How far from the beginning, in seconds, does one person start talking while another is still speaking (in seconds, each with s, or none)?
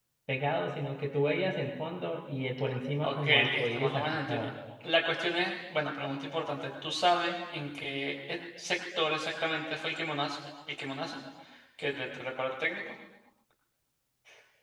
3.0 s